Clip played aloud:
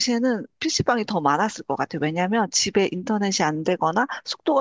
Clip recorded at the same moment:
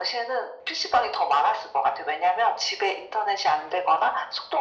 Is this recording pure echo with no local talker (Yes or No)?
Yes